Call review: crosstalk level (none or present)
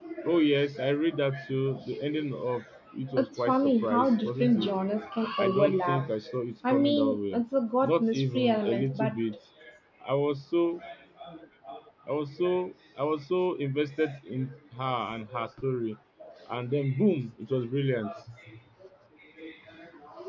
present